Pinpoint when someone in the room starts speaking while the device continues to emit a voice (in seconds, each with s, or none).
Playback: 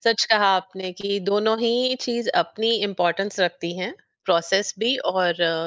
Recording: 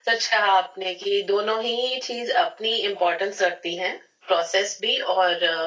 none